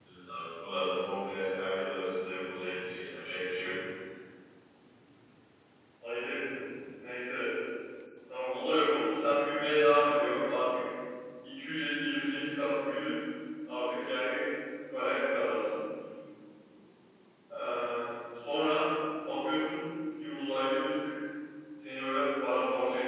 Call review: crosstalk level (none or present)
none